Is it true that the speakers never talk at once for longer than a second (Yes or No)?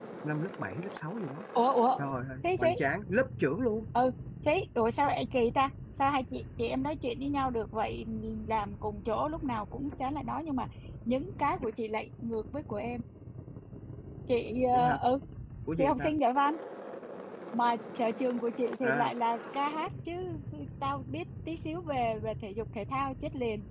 Yes